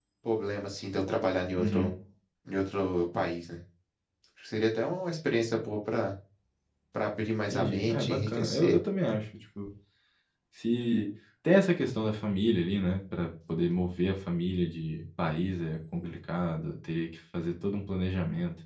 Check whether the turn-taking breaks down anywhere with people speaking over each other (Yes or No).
Yes